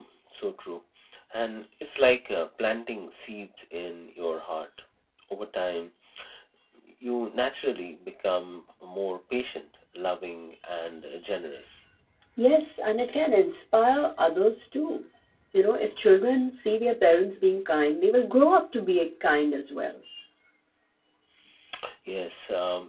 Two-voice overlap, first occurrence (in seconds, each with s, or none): none